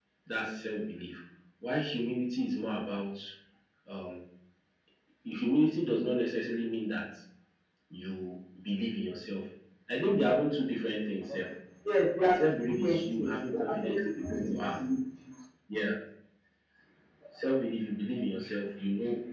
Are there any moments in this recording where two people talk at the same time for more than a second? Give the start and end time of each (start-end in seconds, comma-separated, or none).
12.3-14.8